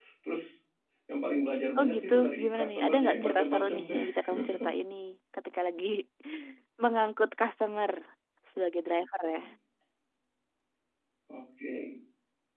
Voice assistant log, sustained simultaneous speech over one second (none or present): present